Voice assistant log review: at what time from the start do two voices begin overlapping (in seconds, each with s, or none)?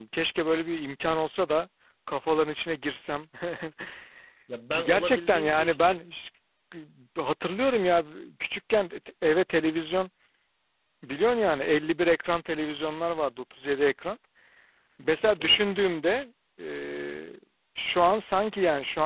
4.7 s